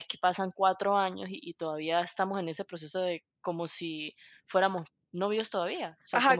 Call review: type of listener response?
taking over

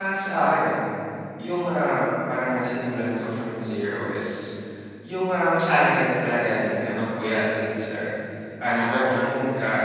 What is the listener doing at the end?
listening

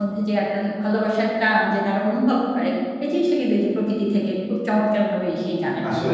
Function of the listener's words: taking over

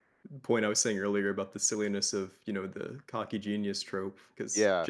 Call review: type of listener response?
listening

